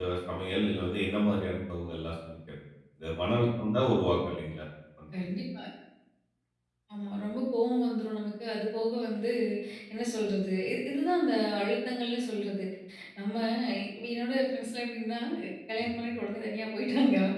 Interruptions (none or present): none